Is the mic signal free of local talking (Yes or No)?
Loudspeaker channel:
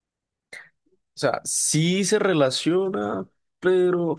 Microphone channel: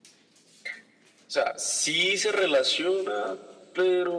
Yes